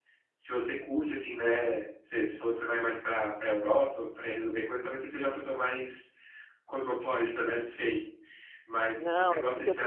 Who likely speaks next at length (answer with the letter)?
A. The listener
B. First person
A